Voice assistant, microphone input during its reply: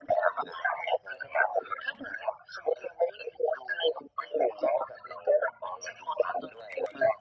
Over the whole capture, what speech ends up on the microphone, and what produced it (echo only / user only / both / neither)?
echo only